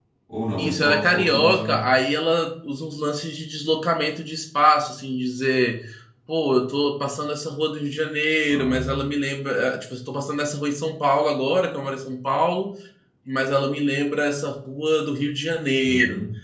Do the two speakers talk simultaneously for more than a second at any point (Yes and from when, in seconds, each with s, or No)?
Yes, from 0.6 s